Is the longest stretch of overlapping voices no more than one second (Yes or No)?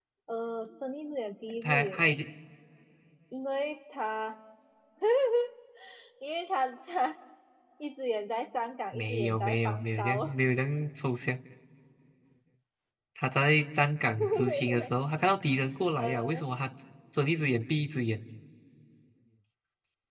No